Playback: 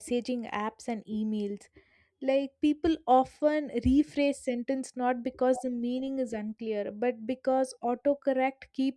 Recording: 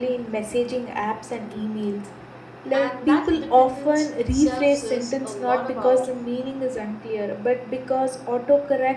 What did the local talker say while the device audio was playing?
And that dependence itself says a lot about

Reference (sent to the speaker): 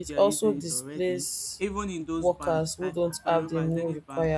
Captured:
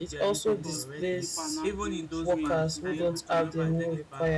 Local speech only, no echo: because many people are now being trained to be able to even

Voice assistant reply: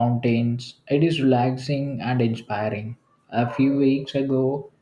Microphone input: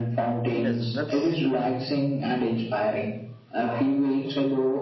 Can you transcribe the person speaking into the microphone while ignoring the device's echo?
Yes, that's

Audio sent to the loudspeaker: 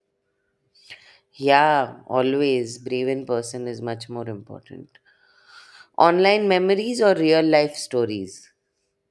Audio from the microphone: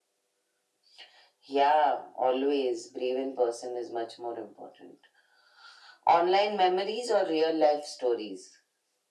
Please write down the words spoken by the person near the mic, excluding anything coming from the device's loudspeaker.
none

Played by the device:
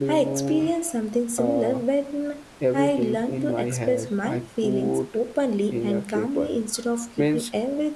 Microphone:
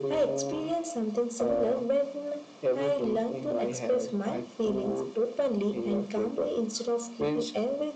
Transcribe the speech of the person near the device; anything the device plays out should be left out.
none

